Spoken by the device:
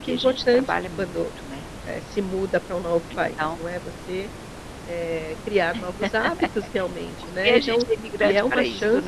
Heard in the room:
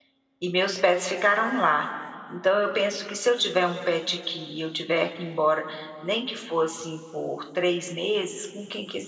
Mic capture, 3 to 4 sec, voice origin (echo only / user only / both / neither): user only